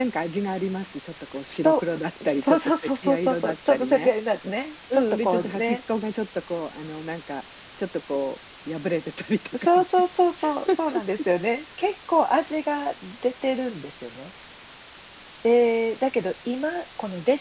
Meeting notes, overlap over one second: present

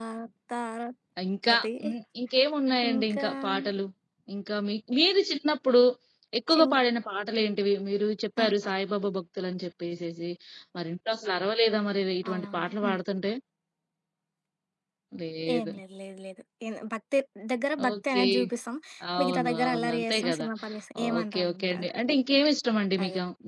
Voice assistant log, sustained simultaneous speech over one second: present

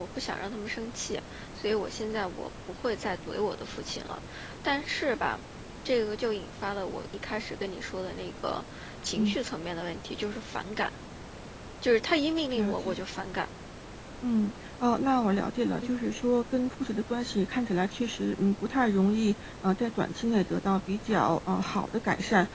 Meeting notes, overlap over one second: none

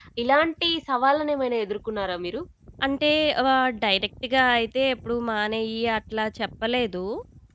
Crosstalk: none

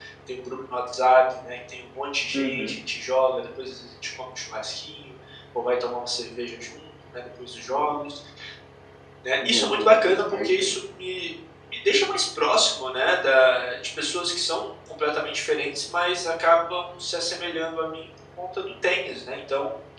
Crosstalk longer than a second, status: present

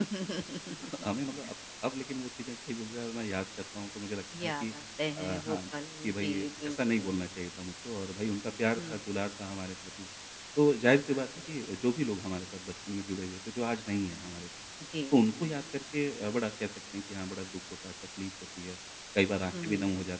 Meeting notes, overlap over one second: present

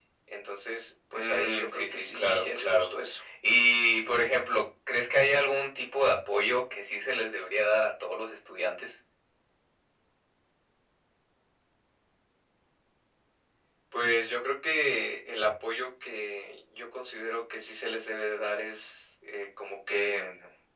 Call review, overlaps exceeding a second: present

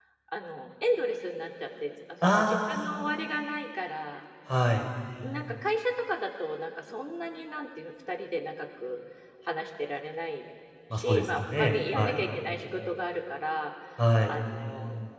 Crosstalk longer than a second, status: present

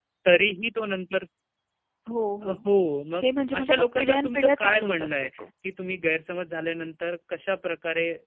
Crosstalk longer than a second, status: present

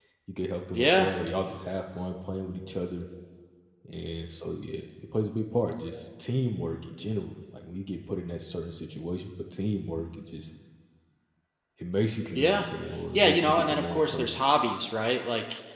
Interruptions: present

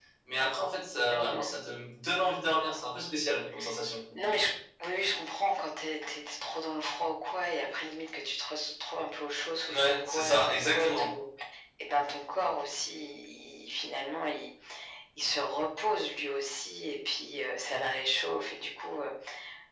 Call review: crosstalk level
present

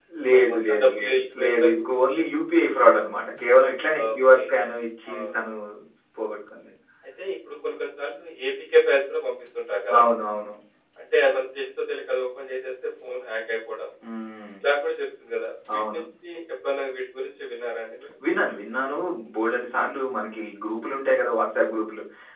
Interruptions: present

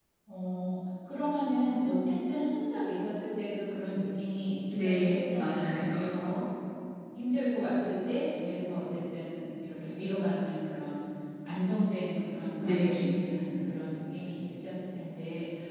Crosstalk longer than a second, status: present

